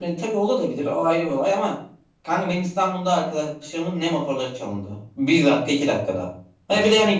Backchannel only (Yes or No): Yes